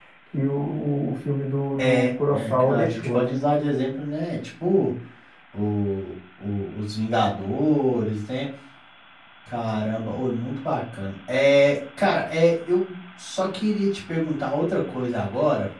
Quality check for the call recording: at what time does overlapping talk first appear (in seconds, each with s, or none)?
1.8 s